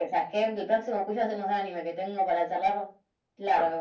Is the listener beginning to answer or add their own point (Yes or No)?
Yes